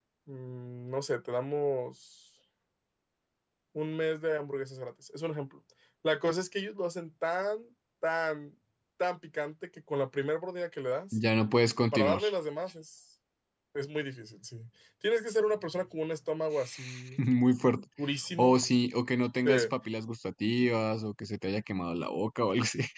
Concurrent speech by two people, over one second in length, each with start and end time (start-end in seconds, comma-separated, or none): none